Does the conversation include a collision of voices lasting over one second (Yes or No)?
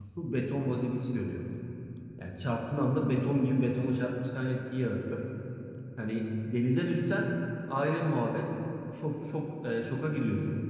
No